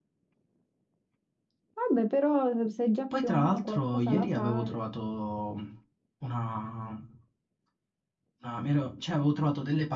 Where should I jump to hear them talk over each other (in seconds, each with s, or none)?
3.1 s